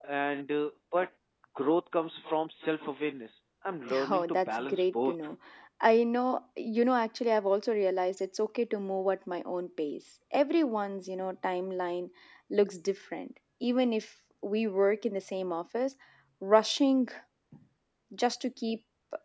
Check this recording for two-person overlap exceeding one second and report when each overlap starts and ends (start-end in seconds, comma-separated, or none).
3.9-5.2